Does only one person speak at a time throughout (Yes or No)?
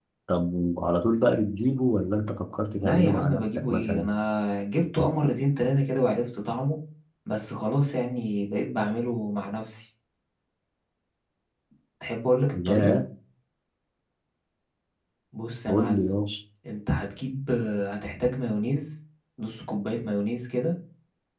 No